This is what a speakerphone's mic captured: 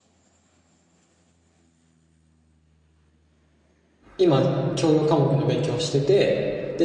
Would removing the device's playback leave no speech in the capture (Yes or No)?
No